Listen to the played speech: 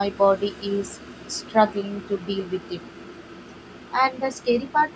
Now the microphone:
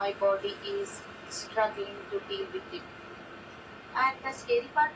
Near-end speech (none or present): none